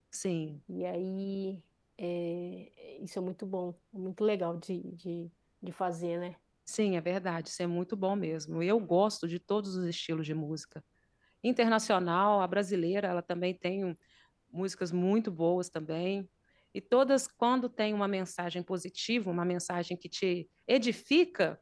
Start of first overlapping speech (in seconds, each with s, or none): none